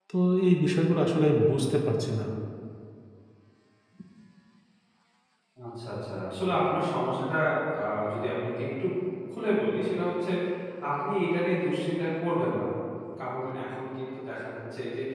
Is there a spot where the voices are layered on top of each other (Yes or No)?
No